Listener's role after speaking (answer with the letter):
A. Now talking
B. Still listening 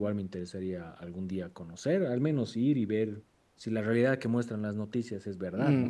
A